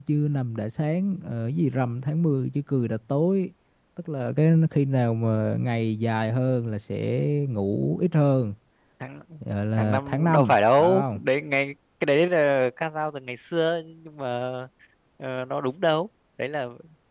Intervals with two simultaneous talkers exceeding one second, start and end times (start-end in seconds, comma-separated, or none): 9.7-11.2